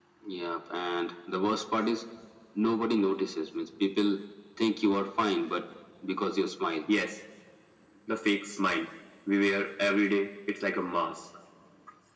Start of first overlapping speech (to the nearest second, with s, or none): none